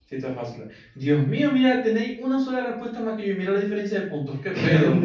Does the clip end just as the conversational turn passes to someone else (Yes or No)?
Yes